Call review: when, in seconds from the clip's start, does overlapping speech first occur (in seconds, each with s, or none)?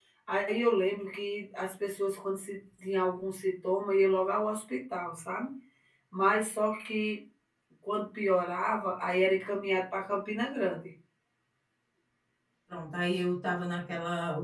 none